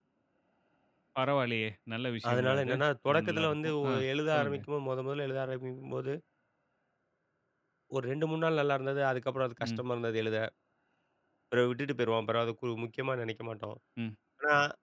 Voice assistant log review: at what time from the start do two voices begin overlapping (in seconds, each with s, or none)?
2.3 s